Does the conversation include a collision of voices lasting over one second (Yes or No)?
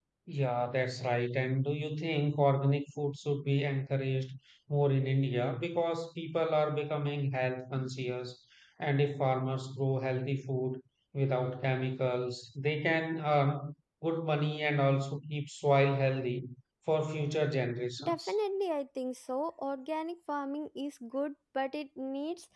No